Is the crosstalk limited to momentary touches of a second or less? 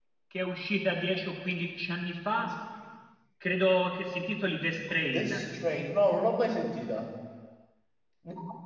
Yes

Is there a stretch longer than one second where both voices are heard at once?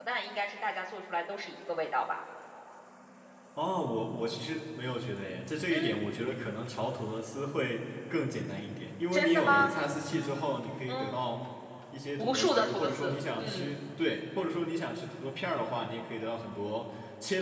Yes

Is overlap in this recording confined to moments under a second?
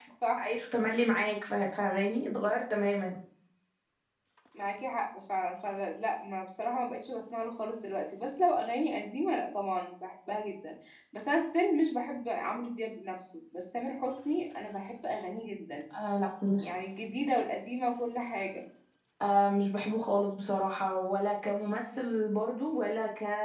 Yes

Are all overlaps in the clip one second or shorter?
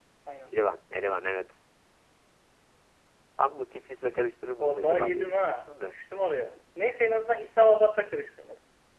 No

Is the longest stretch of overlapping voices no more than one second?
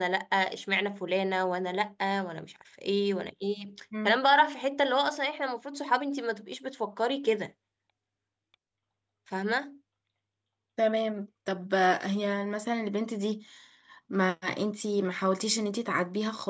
Yes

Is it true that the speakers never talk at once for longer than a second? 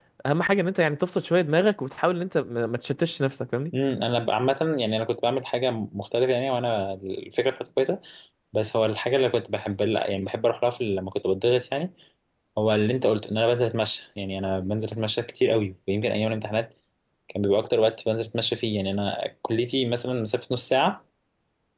Yes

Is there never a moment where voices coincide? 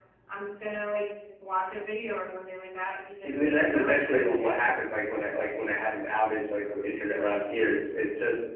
No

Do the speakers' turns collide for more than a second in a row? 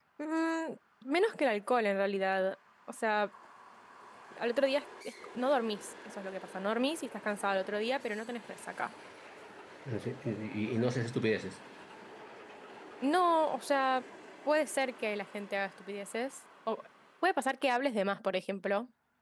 No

